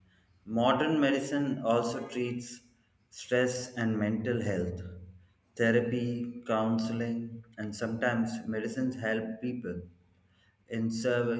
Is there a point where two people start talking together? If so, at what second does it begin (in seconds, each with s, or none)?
none